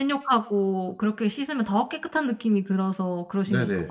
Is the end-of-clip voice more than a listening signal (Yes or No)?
Yes